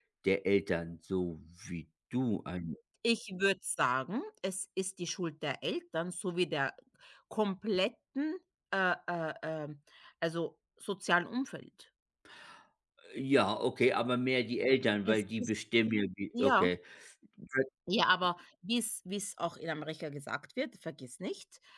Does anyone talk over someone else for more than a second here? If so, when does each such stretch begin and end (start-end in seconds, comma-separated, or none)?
none